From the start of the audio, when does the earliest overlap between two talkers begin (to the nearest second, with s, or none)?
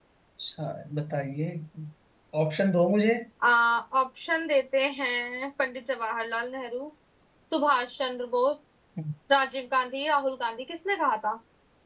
none